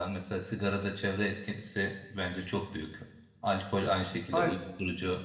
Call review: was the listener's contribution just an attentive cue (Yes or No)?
Yes